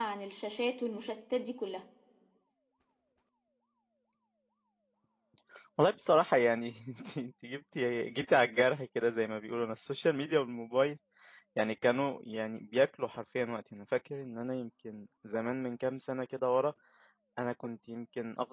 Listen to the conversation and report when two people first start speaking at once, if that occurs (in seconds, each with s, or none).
none